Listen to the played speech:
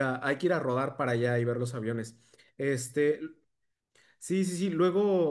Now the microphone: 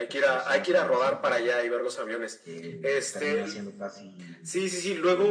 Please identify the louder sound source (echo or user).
echo